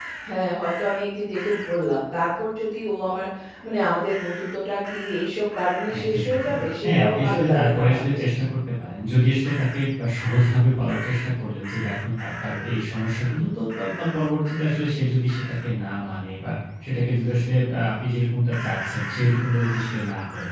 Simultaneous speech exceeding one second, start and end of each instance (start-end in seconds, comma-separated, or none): 6.0-8.2